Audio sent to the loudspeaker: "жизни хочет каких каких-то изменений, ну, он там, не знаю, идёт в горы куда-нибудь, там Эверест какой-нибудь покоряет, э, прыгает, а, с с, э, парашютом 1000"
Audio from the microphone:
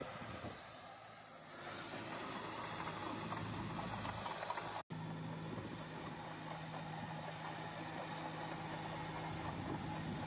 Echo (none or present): none